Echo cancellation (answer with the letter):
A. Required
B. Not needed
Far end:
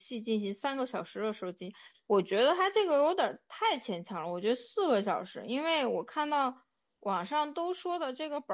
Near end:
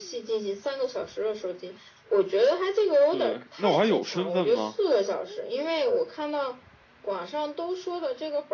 A